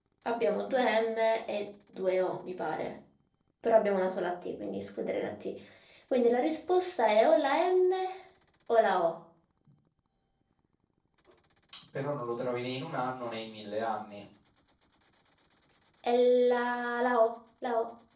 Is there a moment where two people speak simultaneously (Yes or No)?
No